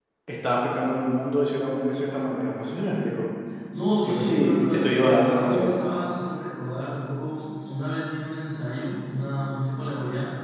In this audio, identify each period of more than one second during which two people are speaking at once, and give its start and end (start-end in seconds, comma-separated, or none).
4.1-5.8